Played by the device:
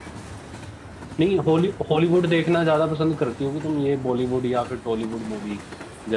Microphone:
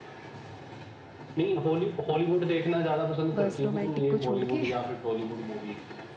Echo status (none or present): present